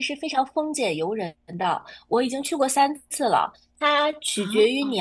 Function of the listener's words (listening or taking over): listening